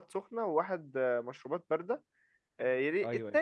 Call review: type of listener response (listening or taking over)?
listening